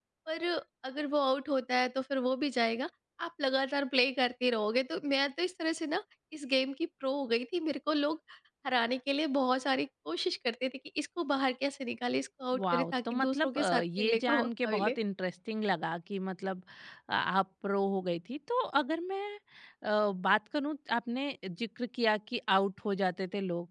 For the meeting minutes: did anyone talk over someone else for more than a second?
Yes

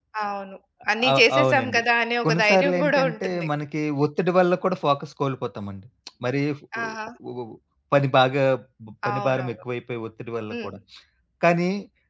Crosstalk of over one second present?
Yes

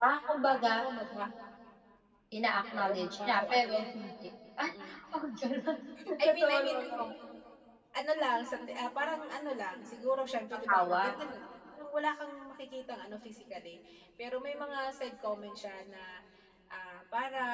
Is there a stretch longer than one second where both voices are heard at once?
Yes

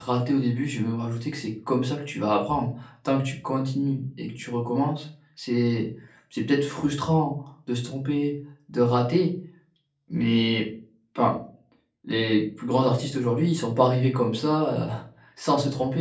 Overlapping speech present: No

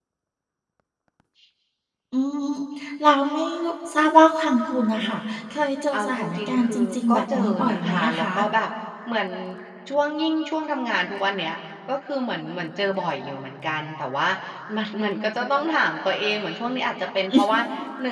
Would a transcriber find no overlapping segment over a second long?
No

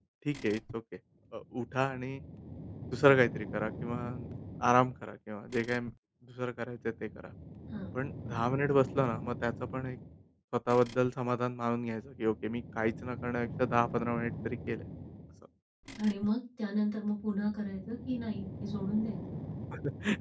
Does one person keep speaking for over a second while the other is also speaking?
No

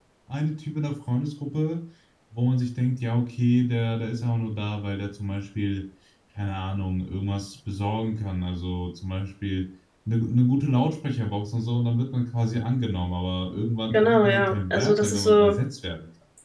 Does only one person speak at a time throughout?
No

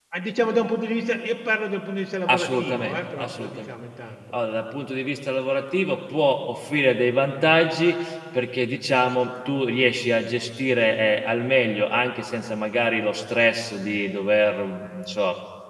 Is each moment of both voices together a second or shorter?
No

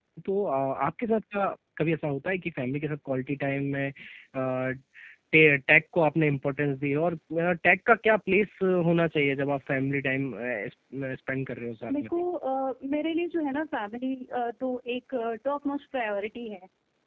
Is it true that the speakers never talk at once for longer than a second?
Yes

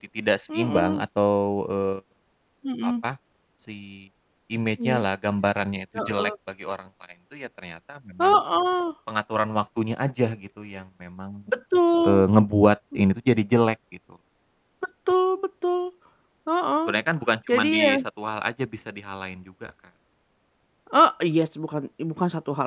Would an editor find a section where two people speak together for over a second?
No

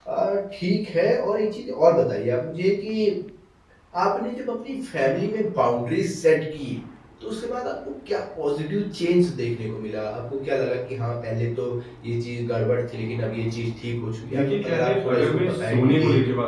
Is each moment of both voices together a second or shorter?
No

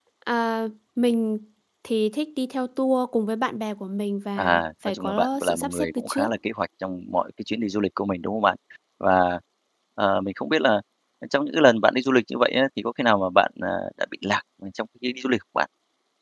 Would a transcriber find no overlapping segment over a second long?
No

